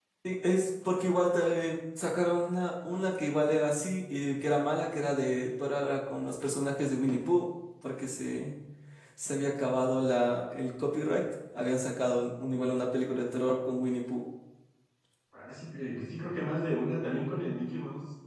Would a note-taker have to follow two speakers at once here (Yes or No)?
No